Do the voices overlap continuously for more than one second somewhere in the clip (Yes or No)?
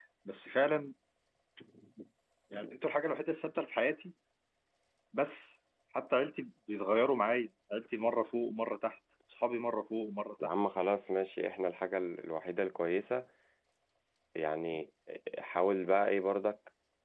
No